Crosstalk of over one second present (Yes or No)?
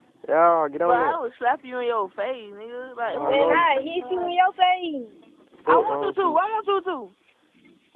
Yes